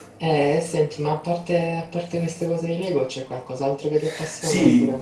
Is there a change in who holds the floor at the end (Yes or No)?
Yes